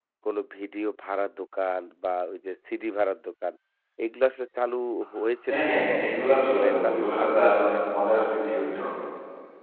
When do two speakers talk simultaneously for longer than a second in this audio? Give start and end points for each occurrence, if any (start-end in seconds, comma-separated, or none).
5.5-7.8